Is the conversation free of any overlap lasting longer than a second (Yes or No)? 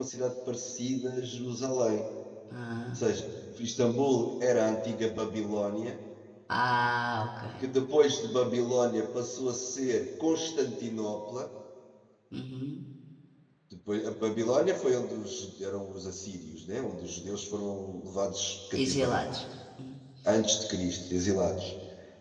Yes